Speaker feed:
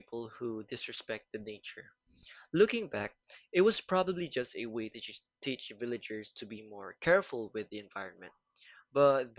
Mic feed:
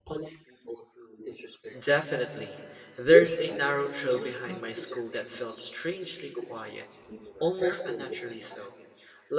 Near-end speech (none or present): present